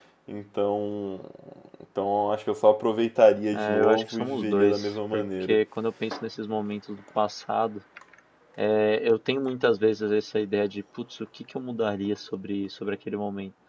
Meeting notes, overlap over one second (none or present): present